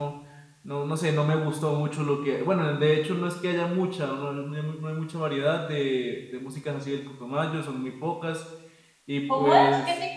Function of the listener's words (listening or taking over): taking over